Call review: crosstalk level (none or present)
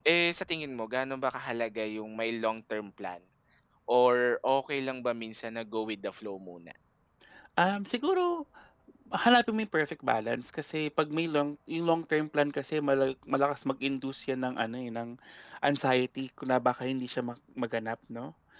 none